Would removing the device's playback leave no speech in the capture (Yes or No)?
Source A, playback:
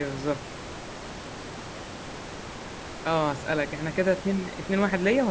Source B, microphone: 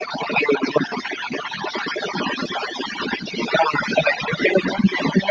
Yes